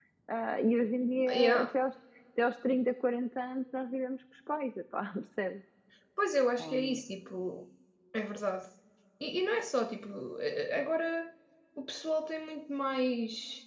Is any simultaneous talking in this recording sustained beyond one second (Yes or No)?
No